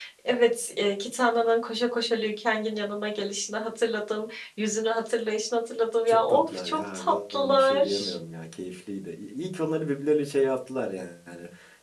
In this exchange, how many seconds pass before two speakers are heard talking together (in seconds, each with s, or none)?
6.1 s